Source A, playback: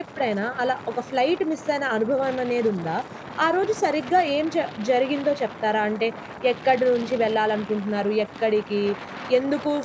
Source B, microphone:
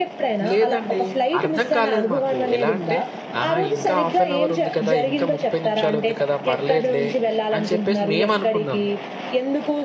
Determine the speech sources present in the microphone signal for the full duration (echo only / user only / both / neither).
both